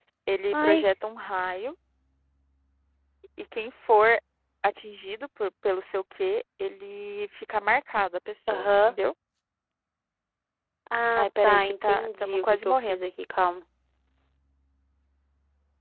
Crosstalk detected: Yes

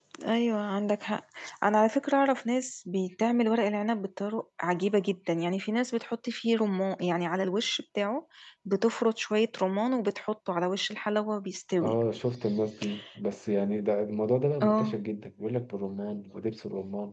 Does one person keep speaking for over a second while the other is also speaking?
No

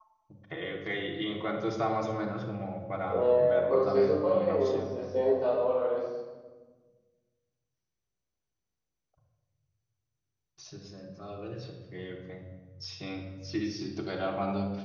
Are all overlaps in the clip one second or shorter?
No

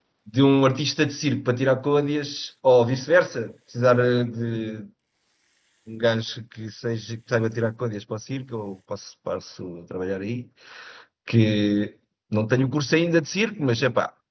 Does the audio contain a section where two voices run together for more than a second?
No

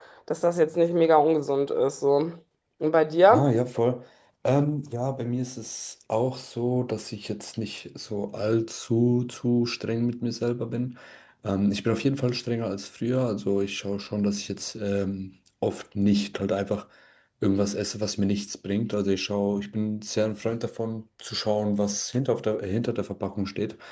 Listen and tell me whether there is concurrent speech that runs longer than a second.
No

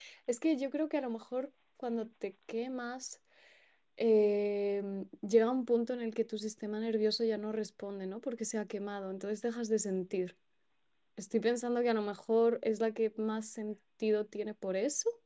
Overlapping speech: No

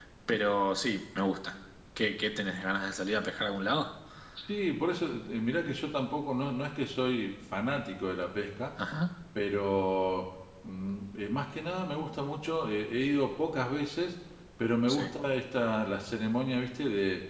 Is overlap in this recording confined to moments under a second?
Yes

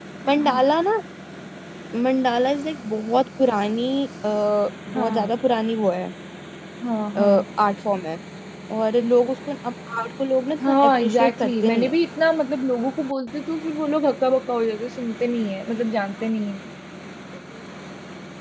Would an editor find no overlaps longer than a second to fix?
No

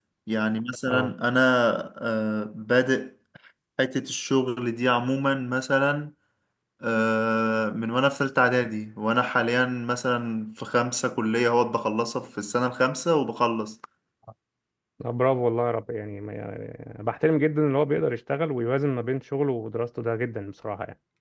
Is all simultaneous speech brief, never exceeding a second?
Yes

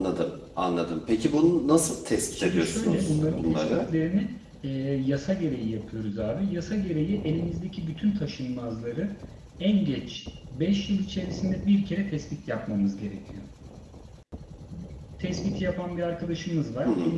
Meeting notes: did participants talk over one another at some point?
Yes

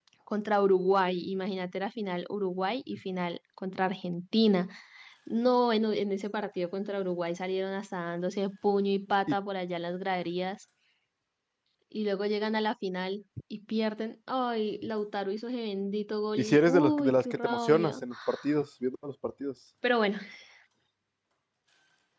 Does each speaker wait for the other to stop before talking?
No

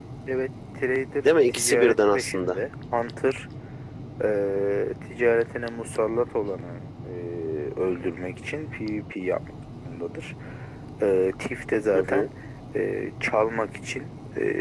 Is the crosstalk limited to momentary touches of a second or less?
No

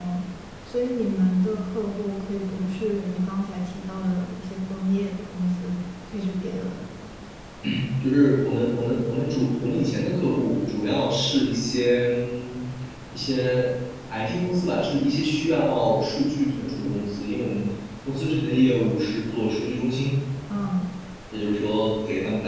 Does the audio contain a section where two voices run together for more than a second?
No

